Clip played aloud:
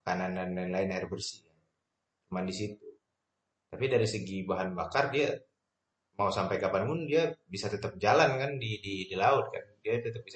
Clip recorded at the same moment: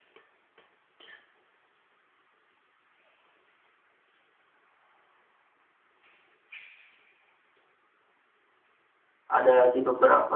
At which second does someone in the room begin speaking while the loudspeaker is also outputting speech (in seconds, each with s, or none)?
9.3 s